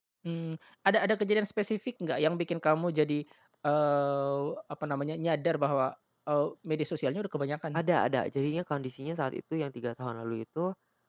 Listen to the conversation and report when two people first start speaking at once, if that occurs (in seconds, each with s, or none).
none